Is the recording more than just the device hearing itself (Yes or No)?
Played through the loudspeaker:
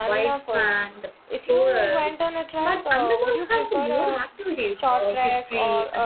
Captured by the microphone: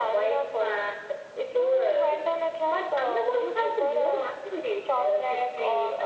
No